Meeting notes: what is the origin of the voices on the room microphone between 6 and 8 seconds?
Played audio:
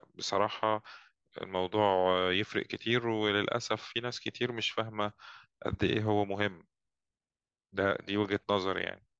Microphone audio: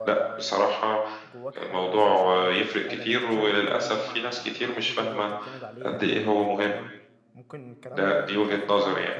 both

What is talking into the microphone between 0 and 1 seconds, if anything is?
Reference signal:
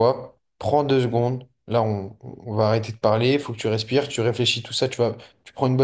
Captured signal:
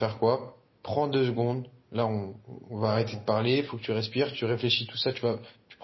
echo only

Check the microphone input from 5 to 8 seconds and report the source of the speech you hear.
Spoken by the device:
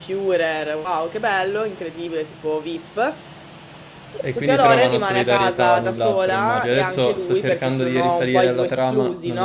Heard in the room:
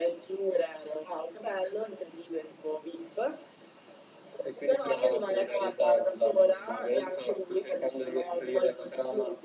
echo only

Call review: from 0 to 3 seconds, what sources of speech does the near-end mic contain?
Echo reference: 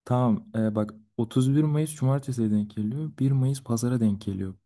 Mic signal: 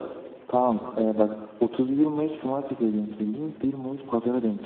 echo only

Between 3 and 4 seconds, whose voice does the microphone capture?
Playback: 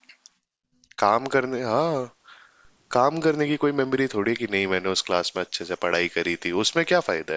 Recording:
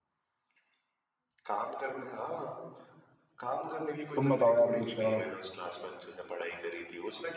echo only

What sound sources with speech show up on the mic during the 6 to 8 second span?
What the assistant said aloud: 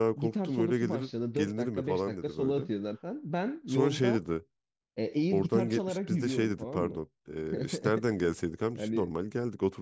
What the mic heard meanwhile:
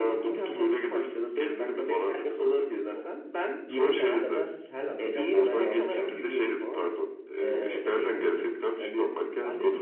both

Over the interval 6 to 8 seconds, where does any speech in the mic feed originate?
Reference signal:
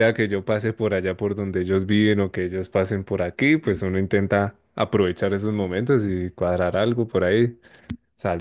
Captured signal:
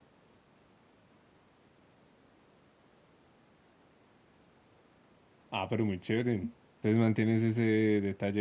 user only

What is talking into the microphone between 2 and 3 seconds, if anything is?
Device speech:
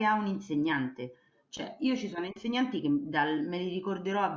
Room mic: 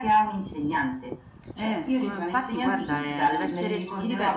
both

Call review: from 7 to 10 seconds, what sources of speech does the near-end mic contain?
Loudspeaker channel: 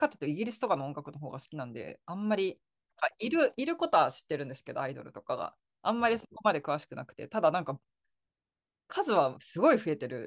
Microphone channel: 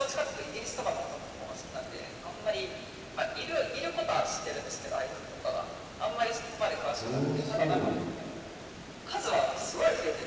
both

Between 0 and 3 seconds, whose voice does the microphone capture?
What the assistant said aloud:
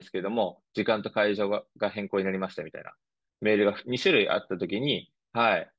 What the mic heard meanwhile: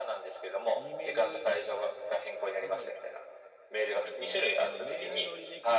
both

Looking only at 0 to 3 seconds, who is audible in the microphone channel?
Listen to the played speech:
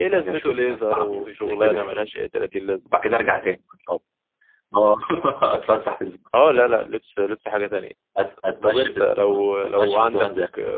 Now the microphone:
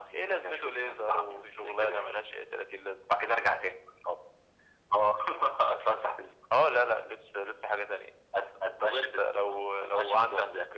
echo only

